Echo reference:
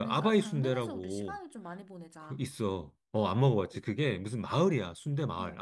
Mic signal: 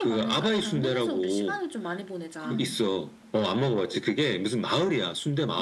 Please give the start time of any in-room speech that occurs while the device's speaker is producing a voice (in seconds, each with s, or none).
2.4 s